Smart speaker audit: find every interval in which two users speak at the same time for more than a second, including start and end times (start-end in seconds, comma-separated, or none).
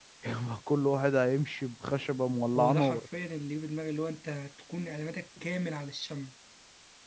none